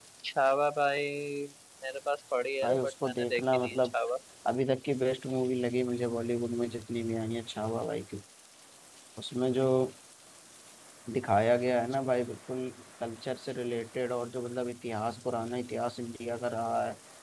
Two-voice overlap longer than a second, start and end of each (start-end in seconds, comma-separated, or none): 2.6-3.9